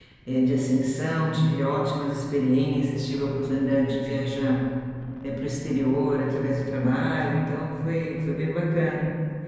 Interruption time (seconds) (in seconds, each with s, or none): none